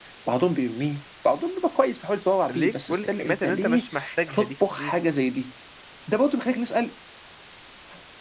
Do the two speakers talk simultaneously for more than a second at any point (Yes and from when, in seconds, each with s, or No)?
Yes, from 2.5 s